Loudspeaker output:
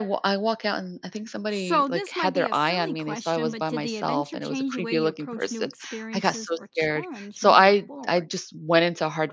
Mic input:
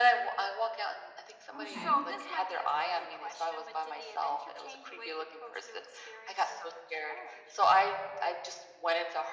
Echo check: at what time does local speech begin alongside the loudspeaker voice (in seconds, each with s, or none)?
1.5 s